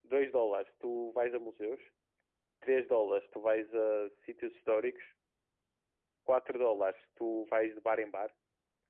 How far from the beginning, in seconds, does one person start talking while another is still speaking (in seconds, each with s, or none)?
none